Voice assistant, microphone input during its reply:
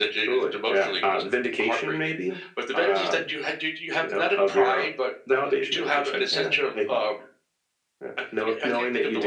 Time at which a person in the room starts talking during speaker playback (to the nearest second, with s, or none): none